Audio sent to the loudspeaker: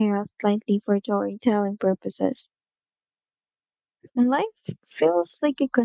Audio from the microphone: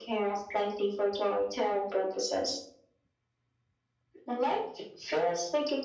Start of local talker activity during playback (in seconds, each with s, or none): none